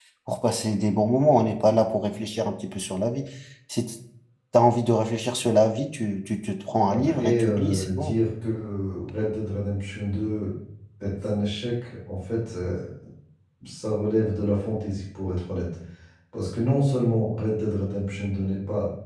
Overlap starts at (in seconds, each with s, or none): 6.9 s